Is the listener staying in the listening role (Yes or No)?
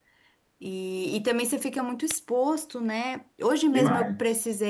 Yes